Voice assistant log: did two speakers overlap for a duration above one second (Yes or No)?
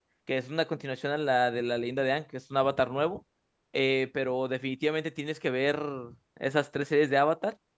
No